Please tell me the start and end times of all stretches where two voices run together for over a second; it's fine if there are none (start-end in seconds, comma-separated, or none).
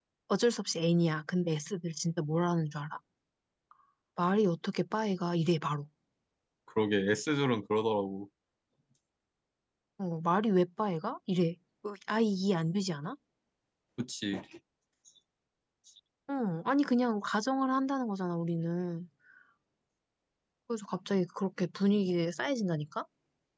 none